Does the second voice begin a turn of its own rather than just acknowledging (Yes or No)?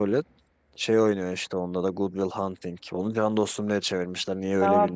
Yes